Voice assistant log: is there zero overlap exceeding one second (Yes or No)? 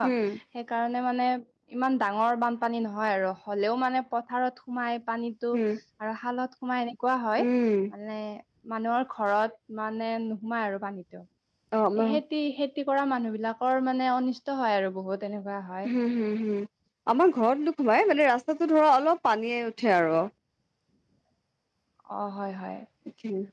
Yes